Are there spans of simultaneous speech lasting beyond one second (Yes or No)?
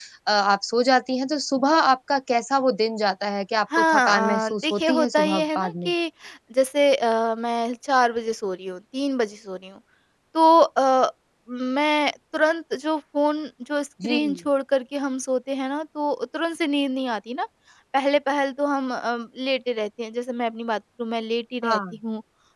Yes